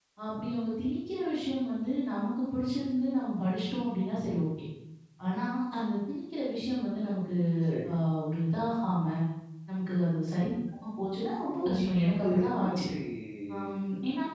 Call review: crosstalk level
present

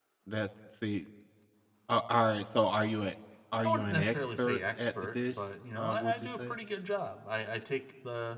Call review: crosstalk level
present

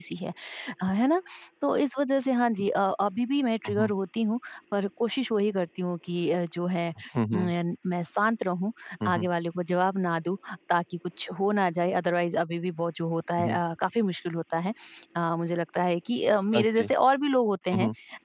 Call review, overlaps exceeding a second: none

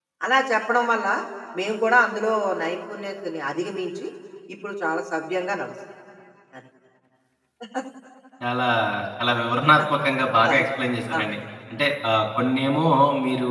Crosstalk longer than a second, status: none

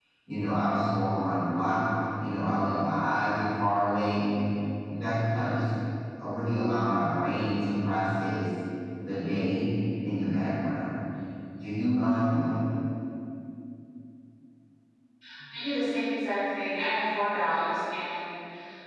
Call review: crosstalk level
none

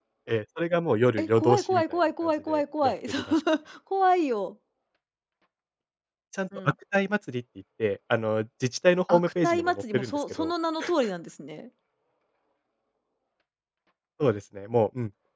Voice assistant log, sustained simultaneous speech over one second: present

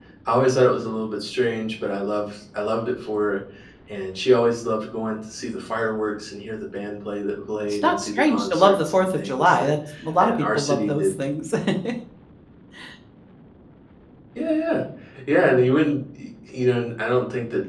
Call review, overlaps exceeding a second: present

